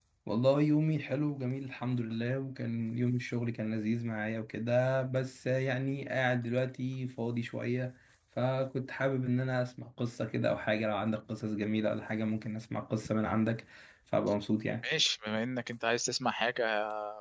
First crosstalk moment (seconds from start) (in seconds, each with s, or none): none